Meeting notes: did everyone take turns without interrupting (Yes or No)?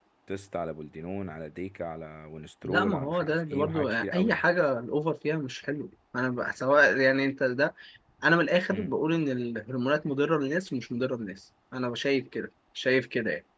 No